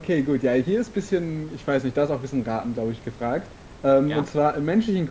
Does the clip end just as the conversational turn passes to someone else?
No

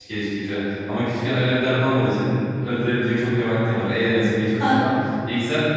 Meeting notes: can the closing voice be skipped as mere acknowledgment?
Yes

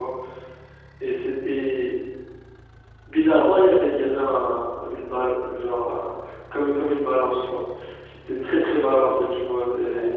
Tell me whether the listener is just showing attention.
Yes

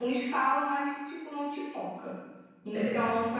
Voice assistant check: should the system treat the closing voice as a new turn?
No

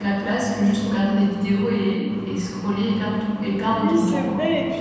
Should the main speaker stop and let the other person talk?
Yes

